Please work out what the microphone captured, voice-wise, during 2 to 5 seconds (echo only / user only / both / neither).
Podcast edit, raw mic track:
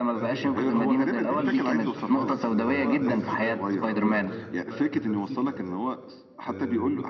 both